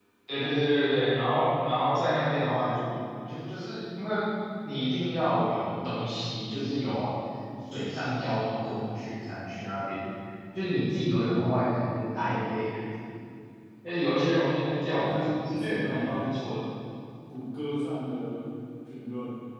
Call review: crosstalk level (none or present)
present